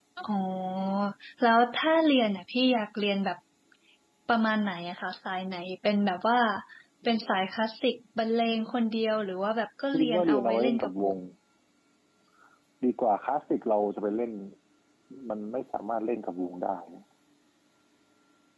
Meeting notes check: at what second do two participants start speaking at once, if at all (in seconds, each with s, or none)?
9.8 s